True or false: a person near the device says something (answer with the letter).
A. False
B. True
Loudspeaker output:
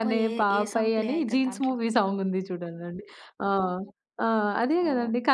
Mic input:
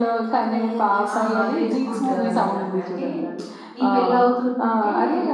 B